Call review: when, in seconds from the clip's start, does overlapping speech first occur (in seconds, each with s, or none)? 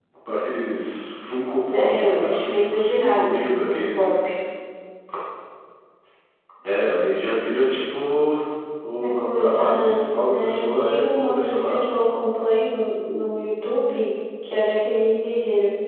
1.7 s